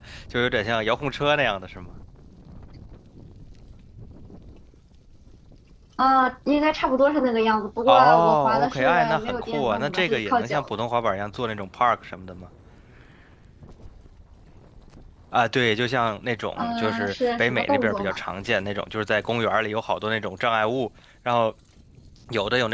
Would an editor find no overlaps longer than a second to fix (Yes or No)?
No